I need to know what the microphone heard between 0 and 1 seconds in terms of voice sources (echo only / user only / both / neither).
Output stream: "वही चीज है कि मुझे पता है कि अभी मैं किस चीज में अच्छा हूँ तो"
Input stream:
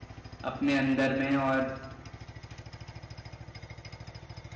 user only